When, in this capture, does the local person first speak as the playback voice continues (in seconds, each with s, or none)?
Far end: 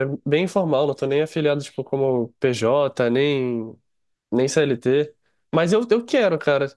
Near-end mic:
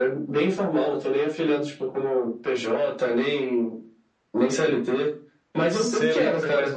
5.7 s